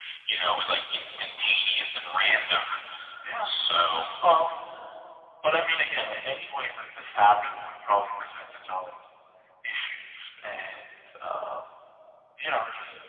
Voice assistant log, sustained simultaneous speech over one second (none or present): none